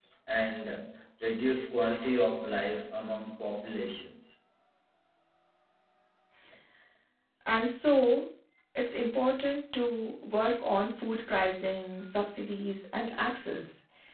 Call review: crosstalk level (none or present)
none